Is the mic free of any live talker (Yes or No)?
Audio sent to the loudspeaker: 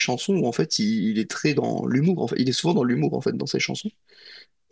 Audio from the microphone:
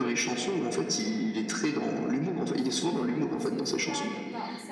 No